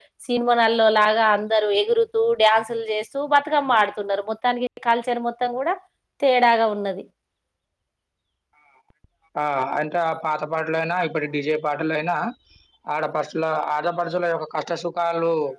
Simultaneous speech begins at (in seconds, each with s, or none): none